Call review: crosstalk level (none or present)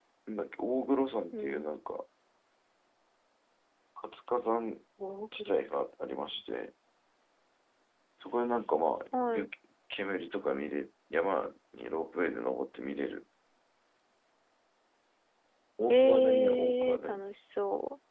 present